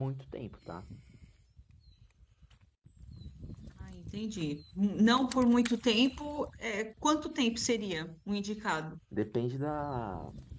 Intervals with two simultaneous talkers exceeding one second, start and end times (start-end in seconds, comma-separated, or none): none